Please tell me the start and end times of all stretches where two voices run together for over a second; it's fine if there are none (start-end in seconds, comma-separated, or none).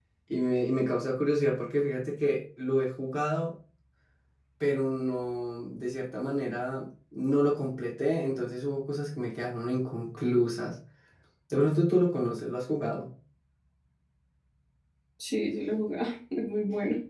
none